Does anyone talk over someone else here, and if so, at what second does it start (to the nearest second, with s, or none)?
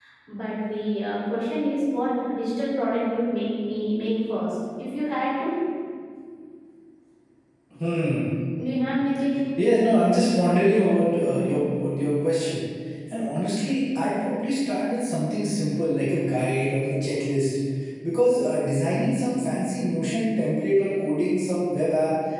none